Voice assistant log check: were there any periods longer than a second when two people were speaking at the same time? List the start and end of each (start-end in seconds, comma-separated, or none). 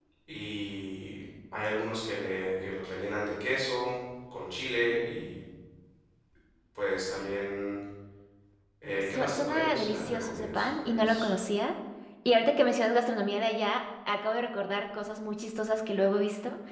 9.0-11.3